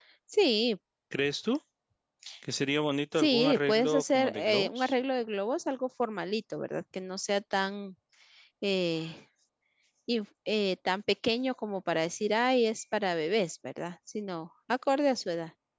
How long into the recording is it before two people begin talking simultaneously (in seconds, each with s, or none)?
3.2 s